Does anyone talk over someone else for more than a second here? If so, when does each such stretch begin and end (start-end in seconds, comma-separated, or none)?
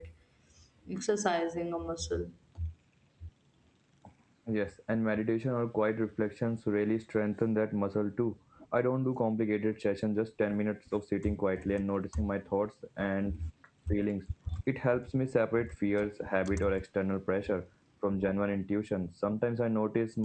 none